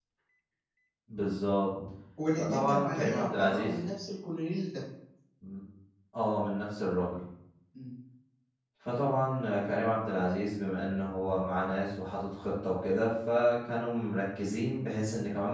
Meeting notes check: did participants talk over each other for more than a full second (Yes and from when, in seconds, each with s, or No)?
Yes, from 2.4 s